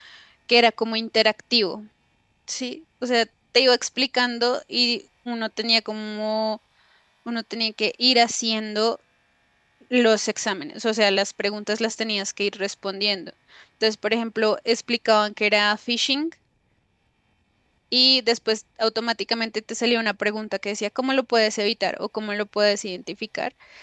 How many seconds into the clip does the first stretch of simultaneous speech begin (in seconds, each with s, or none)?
none